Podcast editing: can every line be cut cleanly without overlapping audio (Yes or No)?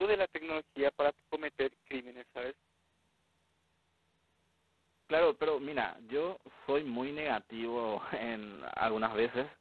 Yes